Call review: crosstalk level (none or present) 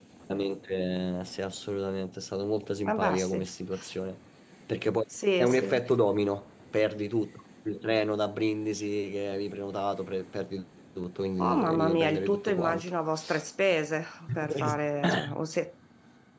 present